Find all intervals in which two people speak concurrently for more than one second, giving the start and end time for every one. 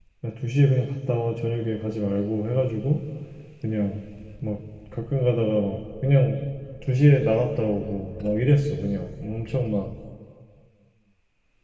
none

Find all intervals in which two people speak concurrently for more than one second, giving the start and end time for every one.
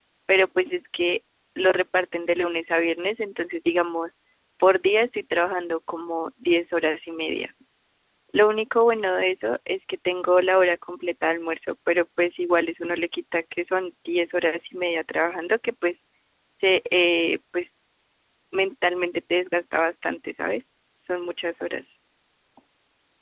none

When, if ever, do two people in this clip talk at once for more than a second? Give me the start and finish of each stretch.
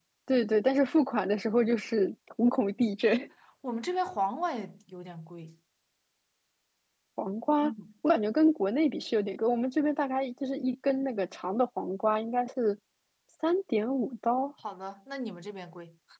none

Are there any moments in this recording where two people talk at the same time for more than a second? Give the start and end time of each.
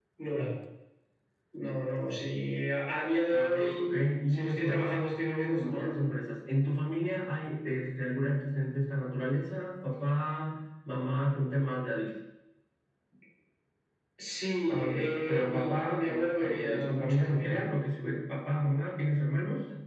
4.3-6.0, 14.7-17.6

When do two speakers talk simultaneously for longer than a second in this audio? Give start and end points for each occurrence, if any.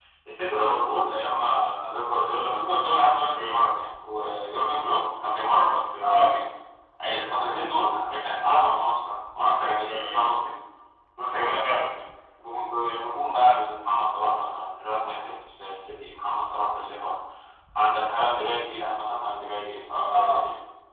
none

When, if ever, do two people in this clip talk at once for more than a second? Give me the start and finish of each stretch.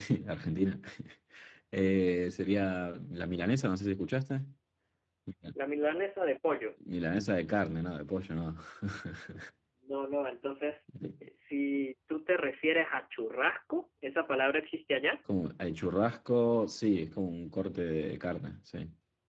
none

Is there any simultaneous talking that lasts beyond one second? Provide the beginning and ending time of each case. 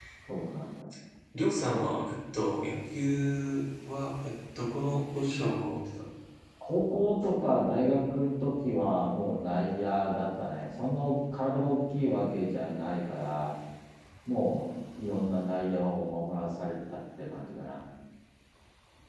none

